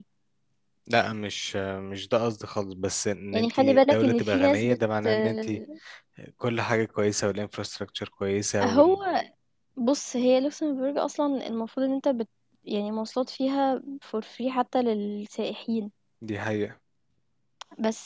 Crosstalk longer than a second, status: present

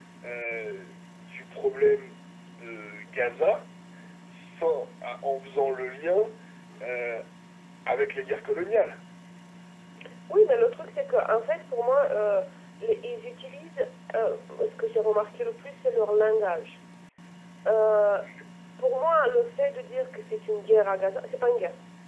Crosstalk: none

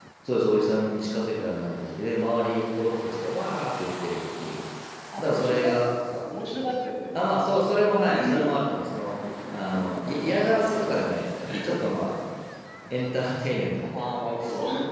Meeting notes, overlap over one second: none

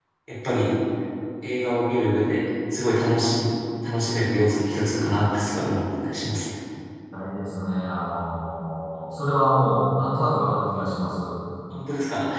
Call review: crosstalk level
none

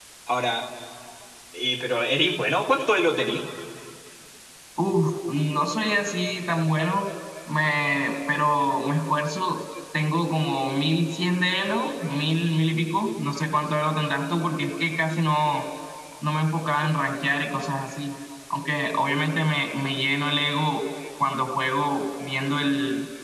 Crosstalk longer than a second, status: none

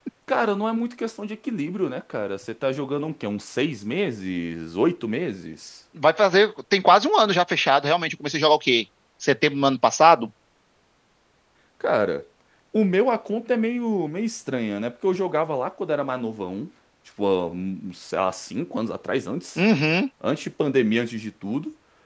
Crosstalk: none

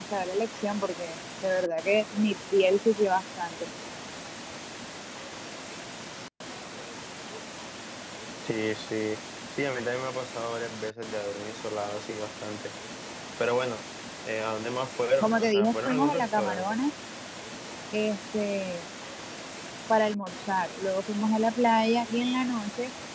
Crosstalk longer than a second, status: present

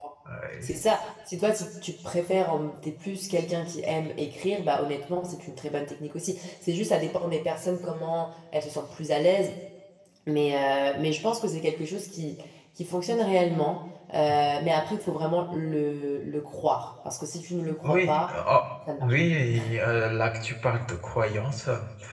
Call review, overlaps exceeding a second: none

